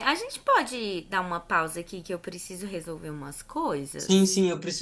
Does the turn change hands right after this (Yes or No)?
Yes